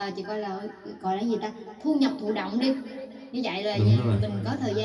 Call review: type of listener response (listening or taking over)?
listening